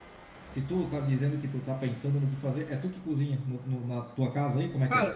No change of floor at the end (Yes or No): No